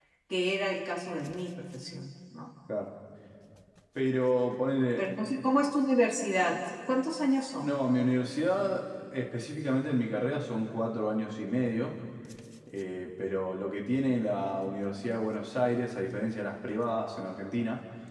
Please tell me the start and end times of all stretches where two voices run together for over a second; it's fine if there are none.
none

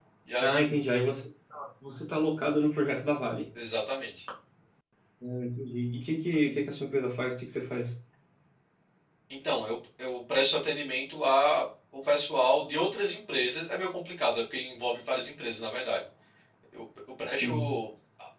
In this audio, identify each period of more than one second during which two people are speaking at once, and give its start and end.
none

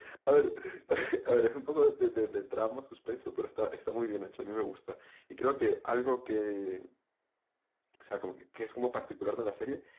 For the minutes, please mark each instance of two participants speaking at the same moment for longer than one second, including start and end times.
none

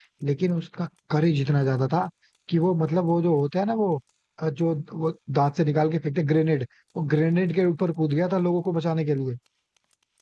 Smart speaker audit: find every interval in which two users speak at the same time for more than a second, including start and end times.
none

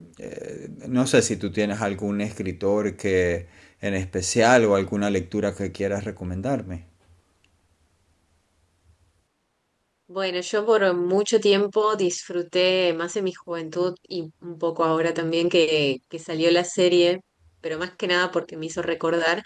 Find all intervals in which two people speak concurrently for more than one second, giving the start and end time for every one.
none

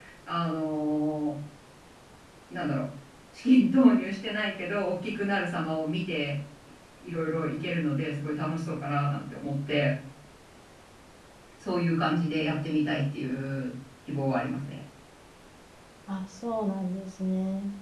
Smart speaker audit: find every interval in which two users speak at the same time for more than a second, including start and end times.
none

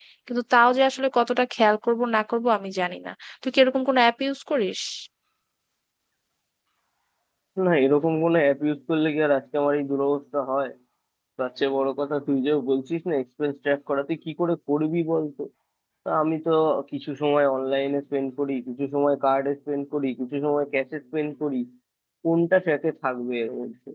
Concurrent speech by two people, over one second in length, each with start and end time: none

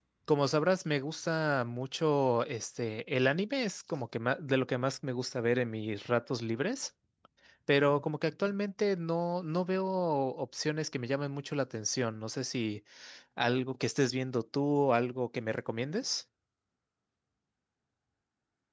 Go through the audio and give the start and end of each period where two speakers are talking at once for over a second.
none

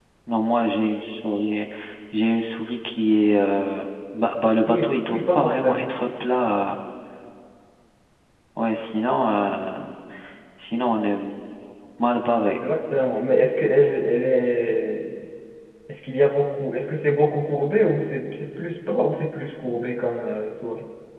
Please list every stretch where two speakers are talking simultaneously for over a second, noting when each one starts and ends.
4.7-5.9

